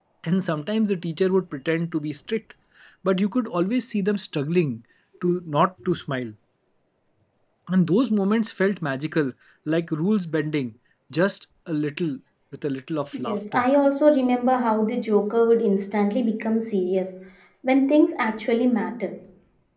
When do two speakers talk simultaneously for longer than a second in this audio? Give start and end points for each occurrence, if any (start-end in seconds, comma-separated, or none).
none